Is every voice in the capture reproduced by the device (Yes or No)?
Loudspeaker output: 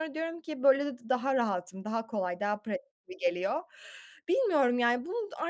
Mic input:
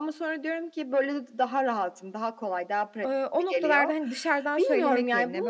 No